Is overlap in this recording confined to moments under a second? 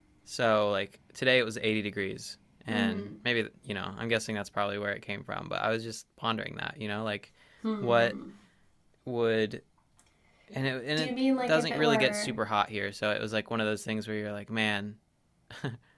No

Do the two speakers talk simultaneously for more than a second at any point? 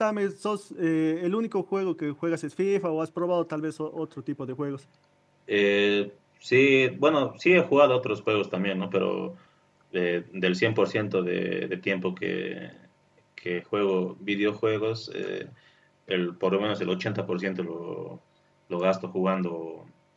No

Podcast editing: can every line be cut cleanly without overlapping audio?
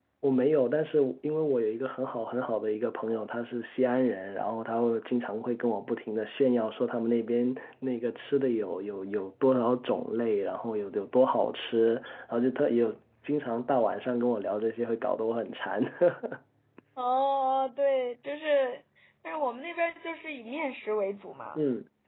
Yes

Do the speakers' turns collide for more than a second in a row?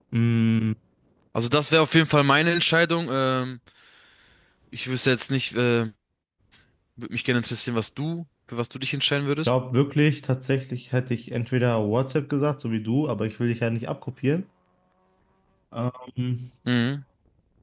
No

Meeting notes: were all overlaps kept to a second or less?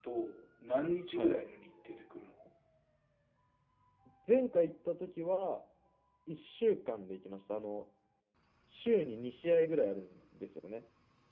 Yes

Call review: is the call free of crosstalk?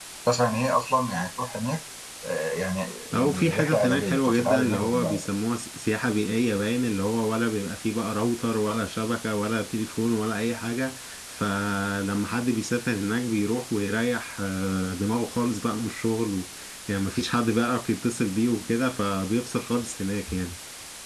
No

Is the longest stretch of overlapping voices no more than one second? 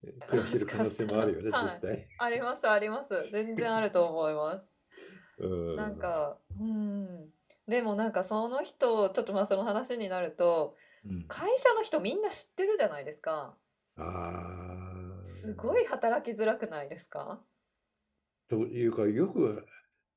No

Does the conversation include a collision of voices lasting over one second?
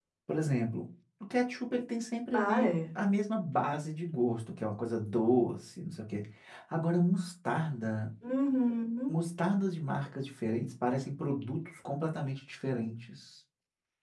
No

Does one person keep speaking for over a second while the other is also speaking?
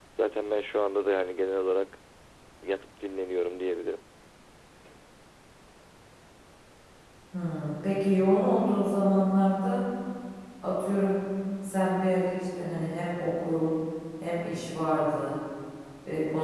No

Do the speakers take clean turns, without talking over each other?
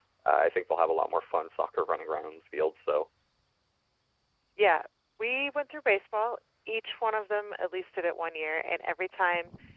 Yes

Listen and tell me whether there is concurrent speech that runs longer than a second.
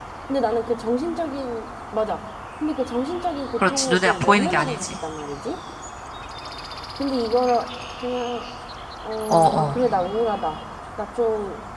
Yes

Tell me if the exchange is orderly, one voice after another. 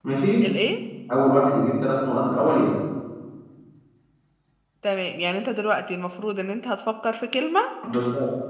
Yes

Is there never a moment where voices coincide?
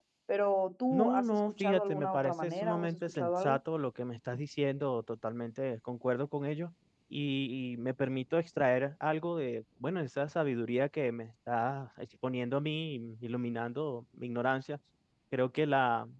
No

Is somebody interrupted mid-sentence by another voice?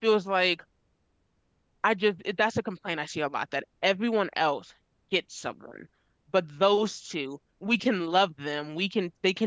No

